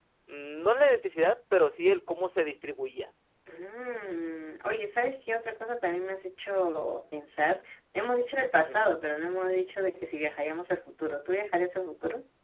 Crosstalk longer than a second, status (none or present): none